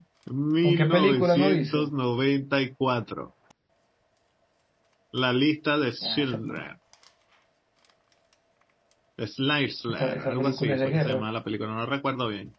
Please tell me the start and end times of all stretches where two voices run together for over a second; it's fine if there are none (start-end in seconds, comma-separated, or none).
0.6-1.9, 10.0-11.2